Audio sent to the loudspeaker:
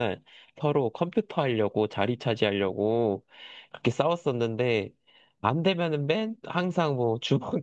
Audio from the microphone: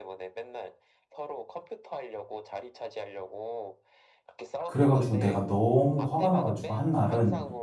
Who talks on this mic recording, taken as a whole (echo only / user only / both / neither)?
both